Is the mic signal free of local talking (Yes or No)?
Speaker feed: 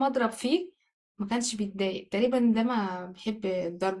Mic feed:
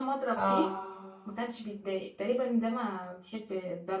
No